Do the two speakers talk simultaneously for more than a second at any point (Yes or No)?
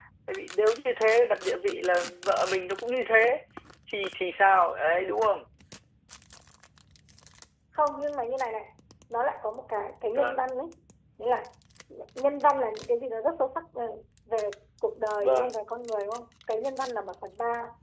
No